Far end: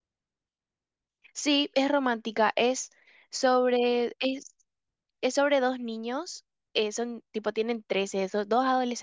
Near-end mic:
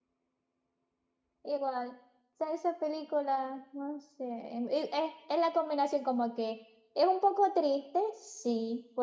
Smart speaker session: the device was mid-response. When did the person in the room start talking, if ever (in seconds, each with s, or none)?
1.4 s